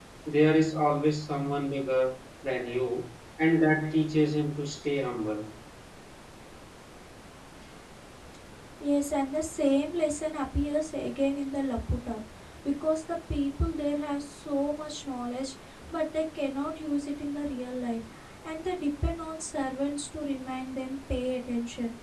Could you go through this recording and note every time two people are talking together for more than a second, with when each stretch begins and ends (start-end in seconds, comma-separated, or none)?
none